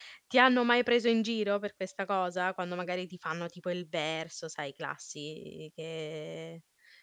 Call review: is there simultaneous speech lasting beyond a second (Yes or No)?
No